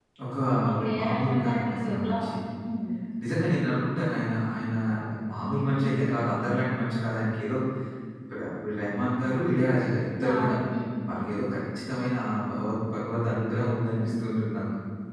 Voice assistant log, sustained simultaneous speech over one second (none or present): present